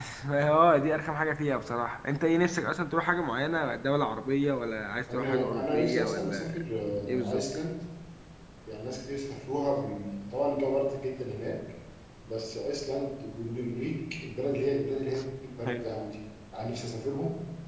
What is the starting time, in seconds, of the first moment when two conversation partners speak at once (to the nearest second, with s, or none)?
5 s